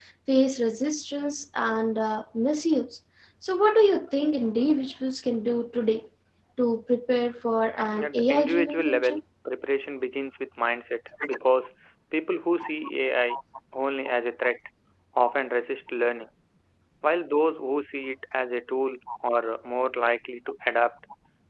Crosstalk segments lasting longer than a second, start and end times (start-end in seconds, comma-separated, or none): 8.0-9.2